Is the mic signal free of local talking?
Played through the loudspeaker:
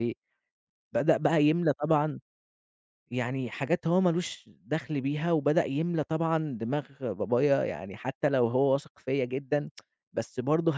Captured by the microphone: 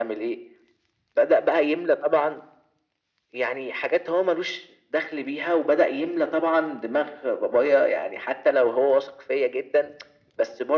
Yes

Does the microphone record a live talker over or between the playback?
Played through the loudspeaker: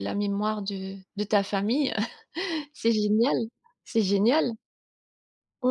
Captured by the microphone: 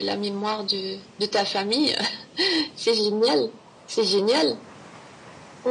No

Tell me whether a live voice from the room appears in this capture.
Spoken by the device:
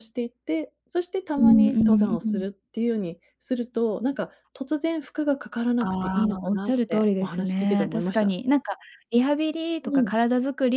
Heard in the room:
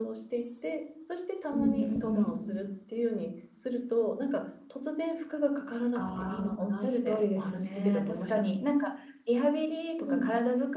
No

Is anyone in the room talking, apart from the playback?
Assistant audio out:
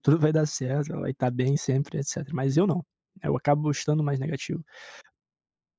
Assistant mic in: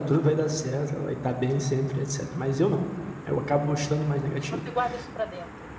Yes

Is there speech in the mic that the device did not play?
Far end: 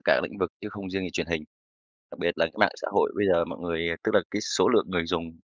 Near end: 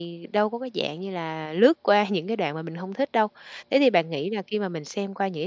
Yes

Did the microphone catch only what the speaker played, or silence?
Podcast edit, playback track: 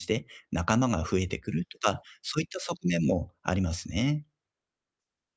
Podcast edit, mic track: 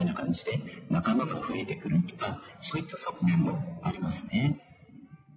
No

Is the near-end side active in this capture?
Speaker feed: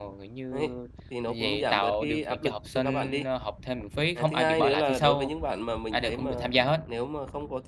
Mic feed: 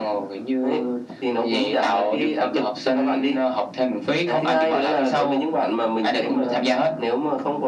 No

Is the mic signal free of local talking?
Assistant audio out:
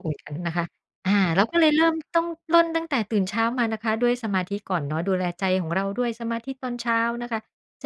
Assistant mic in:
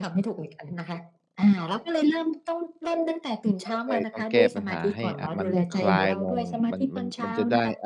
No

